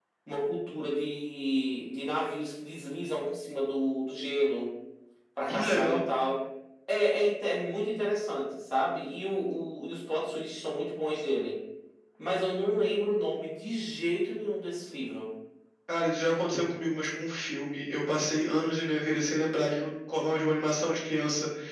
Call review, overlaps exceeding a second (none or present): none